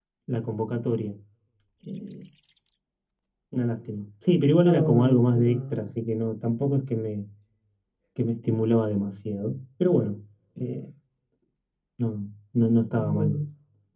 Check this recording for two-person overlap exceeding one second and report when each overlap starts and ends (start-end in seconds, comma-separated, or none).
4.6-5.8